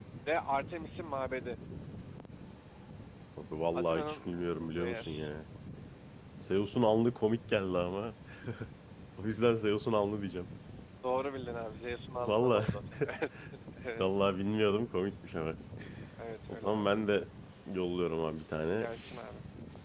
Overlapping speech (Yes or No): Yes